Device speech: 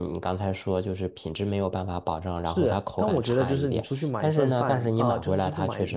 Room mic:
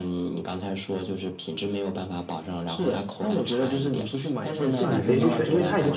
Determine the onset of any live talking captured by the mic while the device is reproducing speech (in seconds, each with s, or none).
4.7 s